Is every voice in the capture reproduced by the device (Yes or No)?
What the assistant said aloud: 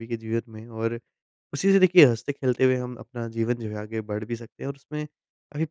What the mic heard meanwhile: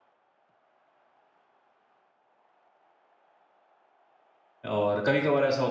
No